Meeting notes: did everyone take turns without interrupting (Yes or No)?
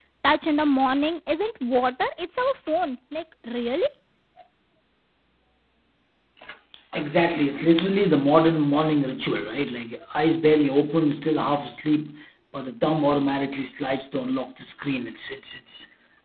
Yes